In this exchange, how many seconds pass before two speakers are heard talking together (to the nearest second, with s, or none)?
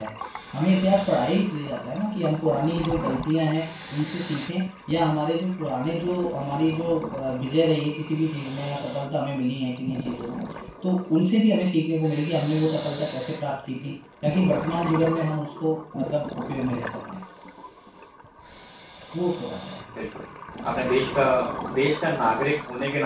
none